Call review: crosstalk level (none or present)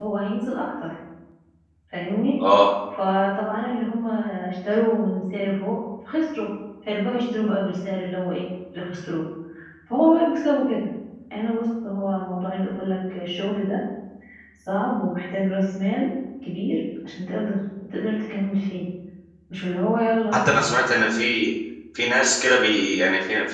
none